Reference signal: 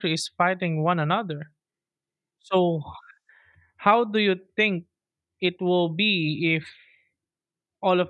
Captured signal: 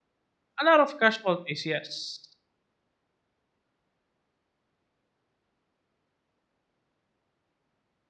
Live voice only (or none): a lot of casualties yes